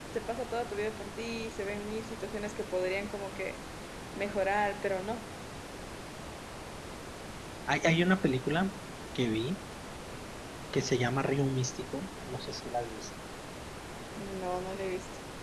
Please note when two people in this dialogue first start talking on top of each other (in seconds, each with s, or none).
none